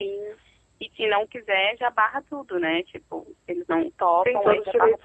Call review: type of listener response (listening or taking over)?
taking over